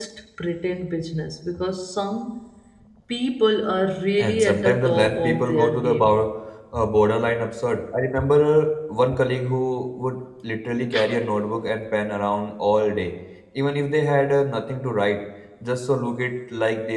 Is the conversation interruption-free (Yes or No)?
No